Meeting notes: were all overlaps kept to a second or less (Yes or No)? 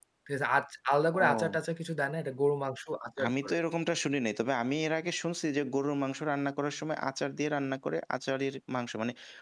Yes